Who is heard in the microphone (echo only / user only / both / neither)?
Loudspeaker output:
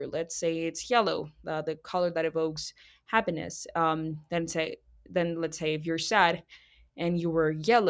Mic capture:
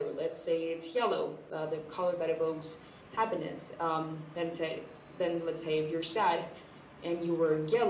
echo only